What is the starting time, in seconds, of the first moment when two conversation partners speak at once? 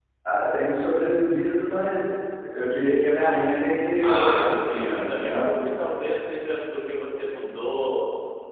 4.0 s

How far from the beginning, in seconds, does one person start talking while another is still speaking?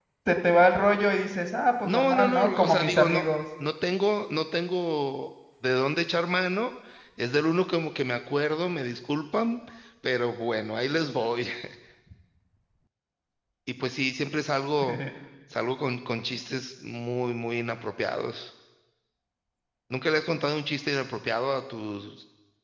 1.8 s

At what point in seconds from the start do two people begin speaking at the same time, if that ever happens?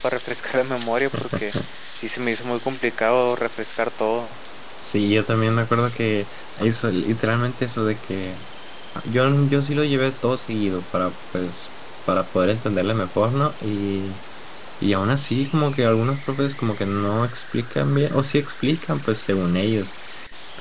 none

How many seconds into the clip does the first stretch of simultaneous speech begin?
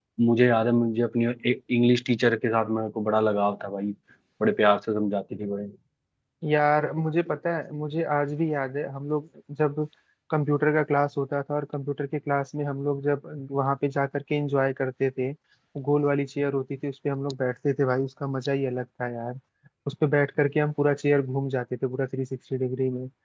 none

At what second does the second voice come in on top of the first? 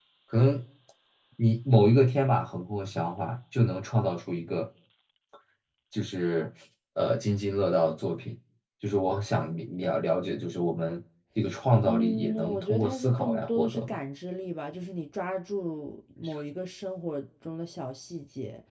11.8 s

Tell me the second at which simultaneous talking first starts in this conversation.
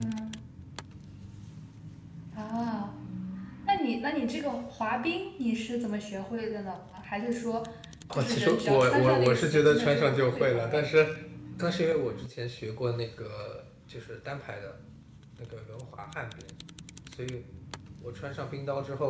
8.1 s

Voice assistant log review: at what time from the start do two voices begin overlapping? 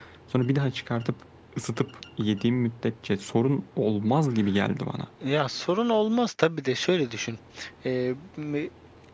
none

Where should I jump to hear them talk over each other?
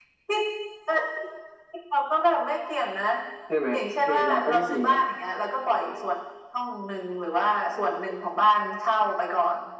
3.7 s

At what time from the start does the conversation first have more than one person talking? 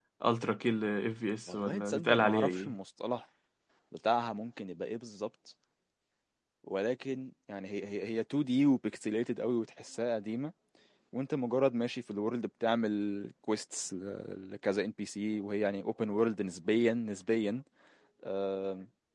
1.5 s

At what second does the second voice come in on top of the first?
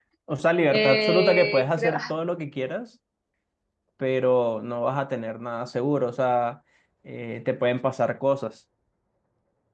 0.7 s

